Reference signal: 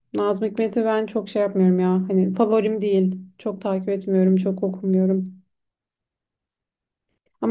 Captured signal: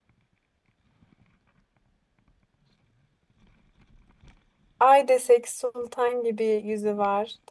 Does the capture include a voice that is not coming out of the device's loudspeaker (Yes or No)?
Yes